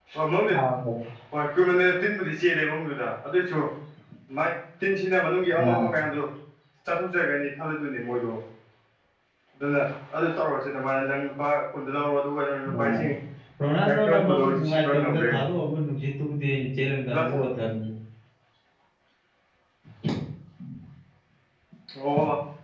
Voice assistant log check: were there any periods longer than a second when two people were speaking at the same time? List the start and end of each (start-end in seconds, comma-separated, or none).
13.9-15.5